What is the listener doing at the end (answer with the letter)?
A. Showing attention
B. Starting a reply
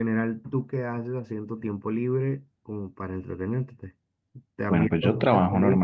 B